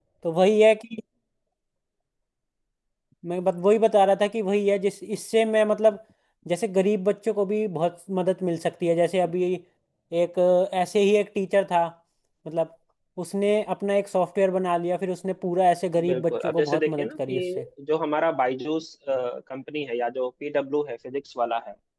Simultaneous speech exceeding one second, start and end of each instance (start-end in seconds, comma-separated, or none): 16.1-17.6